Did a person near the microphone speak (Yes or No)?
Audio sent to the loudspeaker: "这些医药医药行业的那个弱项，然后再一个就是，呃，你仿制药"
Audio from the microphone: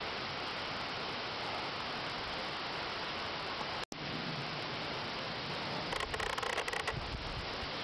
No